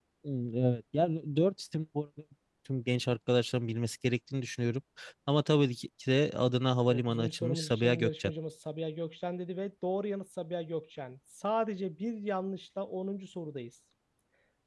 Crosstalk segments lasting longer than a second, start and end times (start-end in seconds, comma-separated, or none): 6.9-8.3